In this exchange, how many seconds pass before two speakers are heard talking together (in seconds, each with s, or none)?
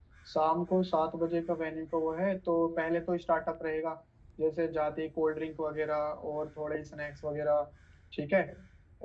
none